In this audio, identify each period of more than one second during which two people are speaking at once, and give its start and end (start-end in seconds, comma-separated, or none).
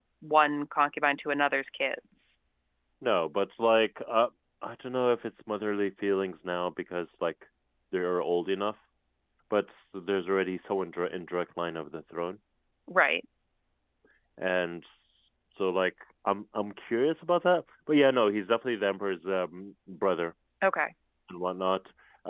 none